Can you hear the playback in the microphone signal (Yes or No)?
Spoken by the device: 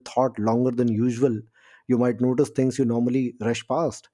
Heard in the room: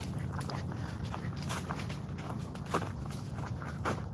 No